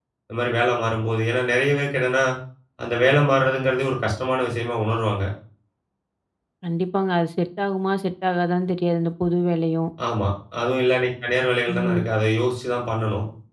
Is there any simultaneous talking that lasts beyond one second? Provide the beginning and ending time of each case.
none

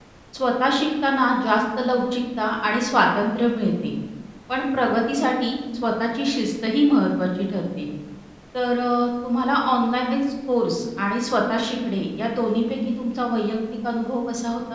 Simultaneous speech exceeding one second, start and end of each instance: none

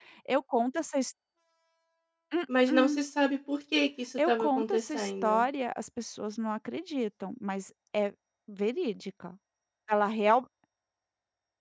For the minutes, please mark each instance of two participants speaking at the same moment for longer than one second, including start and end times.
4.2-5.4

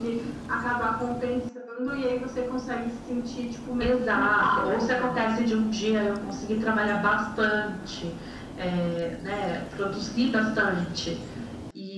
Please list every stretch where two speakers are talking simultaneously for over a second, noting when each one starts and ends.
3.8-5.2

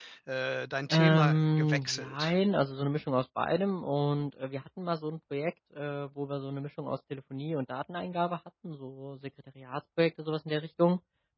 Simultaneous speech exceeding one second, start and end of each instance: 0.9-2.4

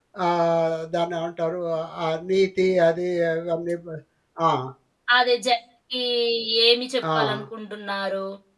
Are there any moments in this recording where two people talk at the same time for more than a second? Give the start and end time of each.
none

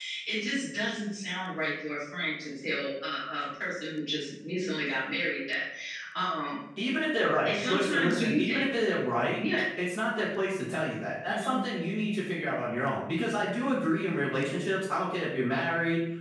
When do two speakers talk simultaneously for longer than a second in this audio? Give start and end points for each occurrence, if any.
7.4-8.8

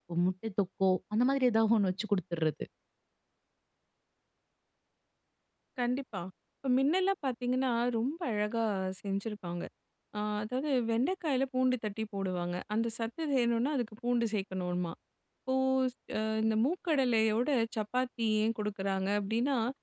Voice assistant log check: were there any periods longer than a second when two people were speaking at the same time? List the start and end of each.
none

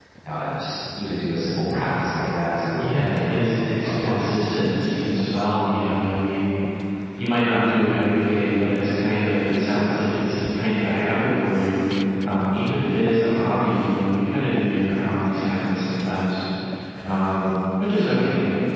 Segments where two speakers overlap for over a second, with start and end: 2.8-4.4

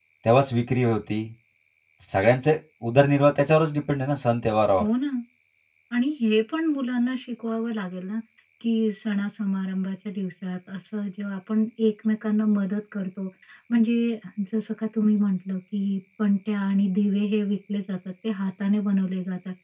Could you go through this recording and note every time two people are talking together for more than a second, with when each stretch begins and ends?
none

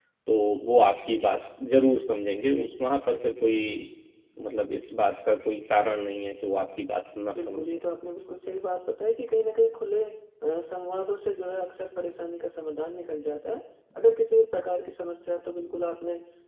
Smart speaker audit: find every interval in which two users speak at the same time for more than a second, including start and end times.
none

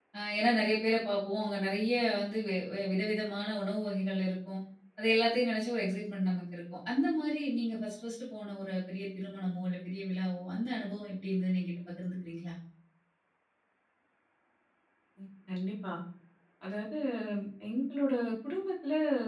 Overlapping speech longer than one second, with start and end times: none

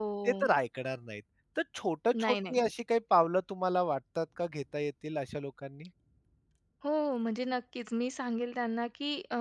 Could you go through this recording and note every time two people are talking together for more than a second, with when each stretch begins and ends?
none

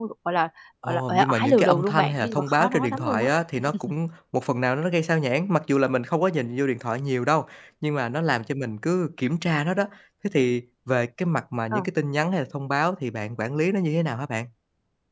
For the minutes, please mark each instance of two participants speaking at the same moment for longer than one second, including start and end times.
0.8-3.3

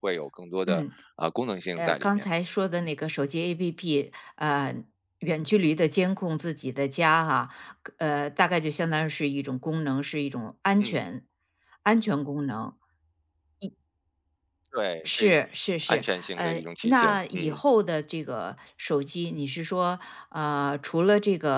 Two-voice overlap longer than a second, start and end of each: 15.9-17.6

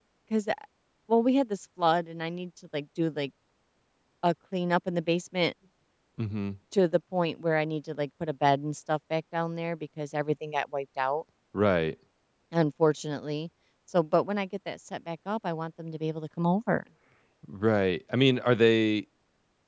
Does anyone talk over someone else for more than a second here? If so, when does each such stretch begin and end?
none

